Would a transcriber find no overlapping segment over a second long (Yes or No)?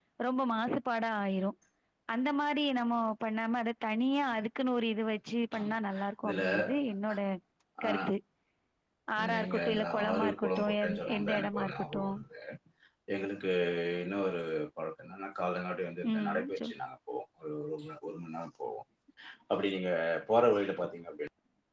No